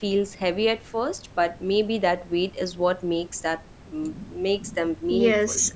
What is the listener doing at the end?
taking over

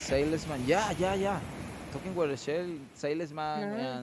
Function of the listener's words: listening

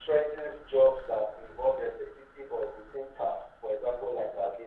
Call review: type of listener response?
listening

